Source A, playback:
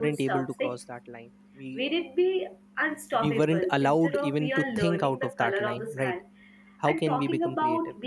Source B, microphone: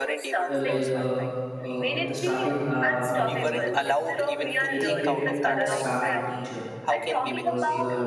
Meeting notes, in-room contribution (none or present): present